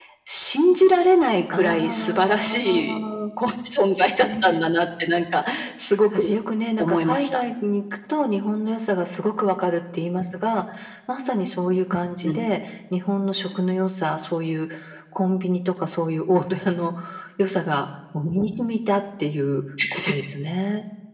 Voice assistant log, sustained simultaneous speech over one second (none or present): present